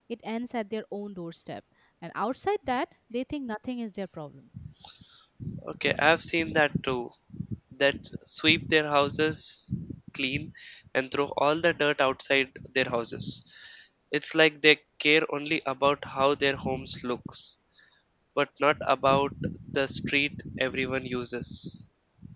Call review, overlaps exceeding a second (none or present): none